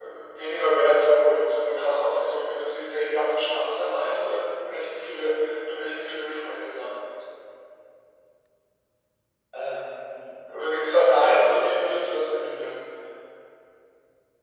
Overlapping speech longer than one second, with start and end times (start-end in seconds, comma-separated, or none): 10.8-12.8